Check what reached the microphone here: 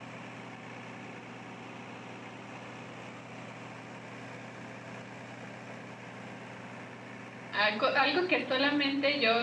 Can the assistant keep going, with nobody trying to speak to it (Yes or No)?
No